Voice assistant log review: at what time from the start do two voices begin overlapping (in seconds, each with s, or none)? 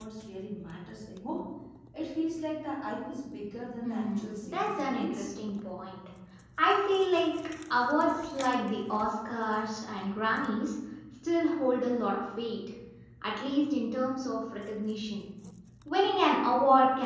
3.8 s